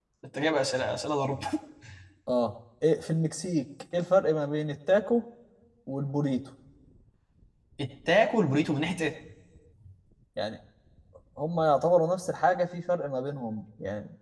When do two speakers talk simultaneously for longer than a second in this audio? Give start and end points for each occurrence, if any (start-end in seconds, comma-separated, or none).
none